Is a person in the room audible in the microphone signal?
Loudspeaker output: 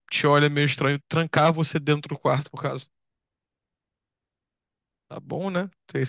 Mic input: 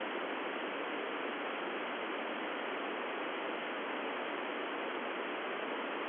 No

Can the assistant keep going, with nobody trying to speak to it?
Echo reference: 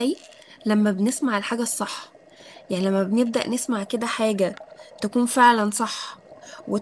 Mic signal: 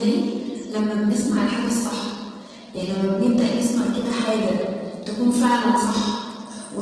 Yes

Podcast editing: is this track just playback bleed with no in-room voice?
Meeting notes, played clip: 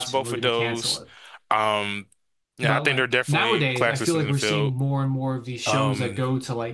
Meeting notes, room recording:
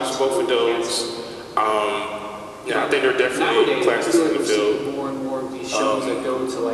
Yes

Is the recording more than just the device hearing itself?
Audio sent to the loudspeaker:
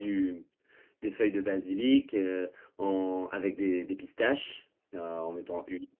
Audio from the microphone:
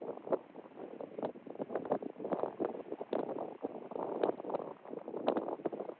No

